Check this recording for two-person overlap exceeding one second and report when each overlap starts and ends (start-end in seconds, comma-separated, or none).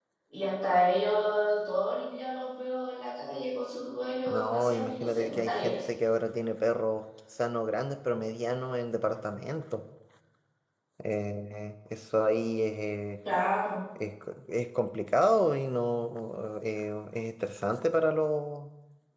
4.3-5.8